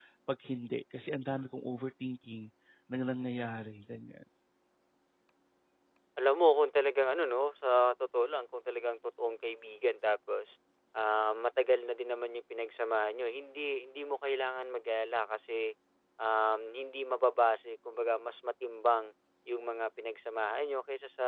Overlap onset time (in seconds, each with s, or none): none